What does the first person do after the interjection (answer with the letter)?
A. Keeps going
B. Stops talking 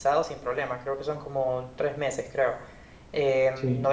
A